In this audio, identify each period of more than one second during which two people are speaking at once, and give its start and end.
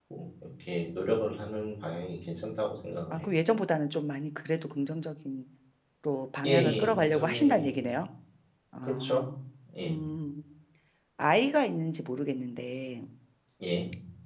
6.4-7.8

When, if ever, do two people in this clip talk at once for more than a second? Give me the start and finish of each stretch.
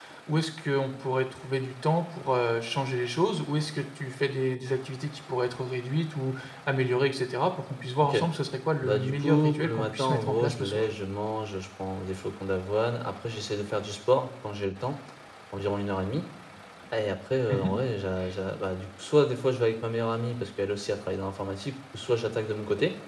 8.8-10.8

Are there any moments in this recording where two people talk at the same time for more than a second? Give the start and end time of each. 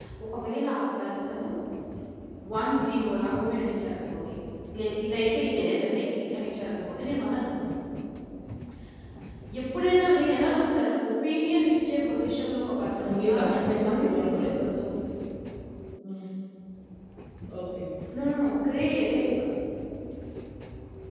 13.1-14.7

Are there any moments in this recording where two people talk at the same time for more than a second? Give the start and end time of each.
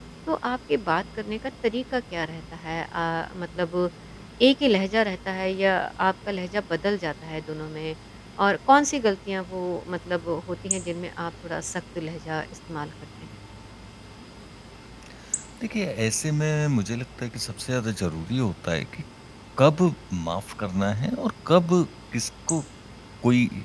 none

